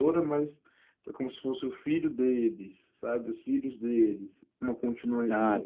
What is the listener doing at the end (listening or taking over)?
listening